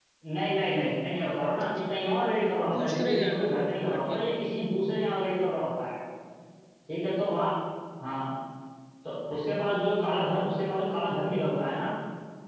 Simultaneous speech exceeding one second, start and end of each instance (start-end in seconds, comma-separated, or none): 2.8-4.5